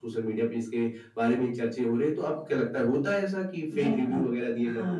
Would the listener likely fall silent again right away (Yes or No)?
No